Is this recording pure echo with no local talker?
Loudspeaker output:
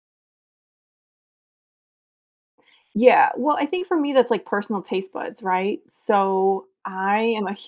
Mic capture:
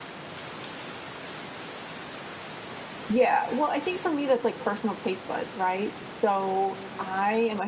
Yes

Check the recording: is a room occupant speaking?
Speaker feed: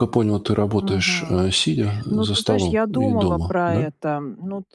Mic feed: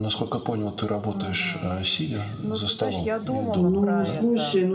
Yes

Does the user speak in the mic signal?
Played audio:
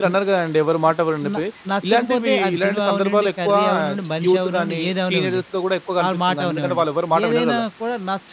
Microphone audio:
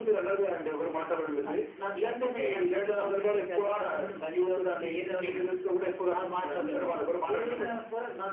No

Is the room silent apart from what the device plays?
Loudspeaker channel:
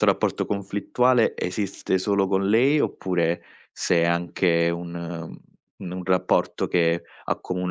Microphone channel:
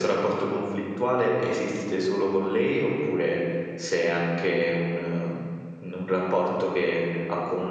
Yes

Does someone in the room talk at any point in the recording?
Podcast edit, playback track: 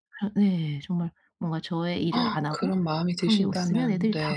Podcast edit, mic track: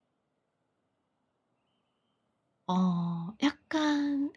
Yes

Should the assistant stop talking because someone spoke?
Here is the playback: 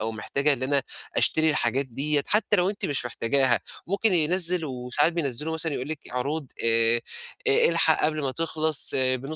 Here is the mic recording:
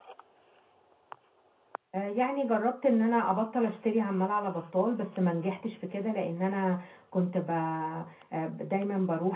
Yes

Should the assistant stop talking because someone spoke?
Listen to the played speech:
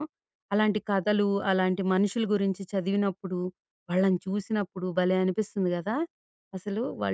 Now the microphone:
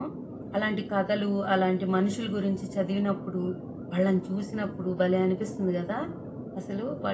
No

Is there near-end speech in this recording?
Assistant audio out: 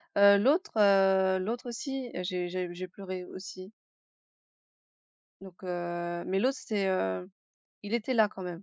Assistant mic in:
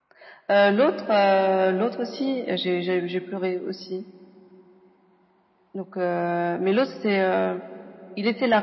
No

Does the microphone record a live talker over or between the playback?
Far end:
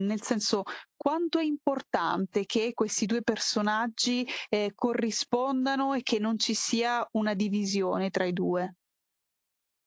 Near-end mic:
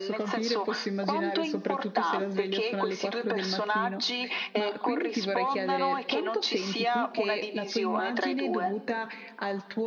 Yes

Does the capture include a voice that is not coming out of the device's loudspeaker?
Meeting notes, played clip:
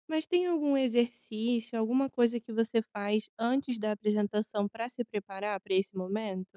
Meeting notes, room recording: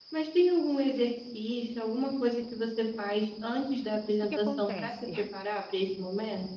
Yes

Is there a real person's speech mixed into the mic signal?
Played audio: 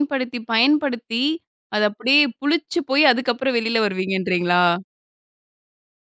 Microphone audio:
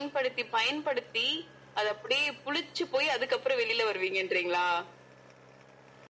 No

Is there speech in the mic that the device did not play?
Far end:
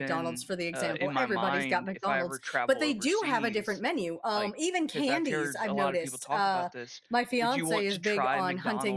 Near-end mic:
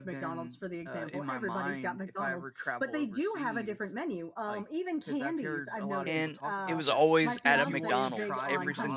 Yes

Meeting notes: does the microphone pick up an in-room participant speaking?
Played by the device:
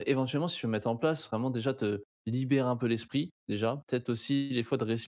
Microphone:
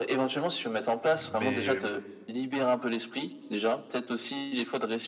Yes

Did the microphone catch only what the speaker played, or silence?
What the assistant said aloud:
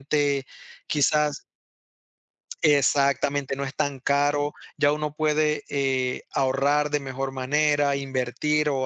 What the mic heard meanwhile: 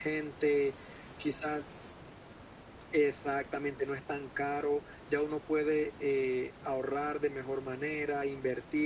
Yes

